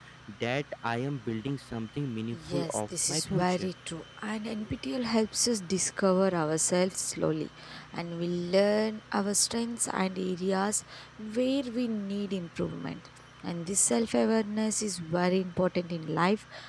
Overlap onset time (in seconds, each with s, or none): 2.3 s